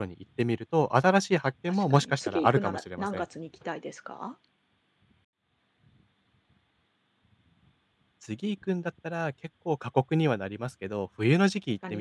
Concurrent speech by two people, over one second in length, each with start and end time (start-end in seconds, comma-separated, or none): 1.7-3.2